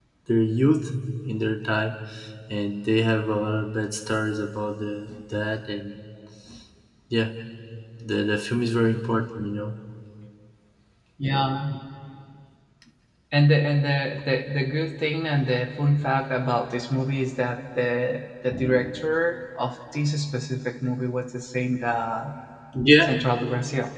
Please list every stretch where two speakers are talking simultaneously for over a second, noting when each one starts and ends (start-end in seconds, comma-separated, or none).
none